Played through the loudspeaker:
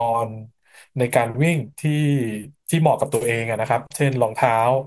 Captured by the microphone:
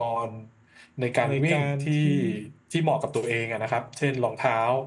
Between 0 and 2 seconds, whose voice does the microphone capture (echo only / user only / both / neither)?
both